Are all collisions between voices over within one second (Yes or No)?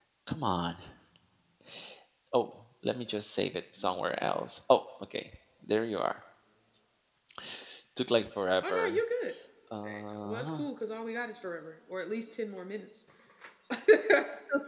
Yes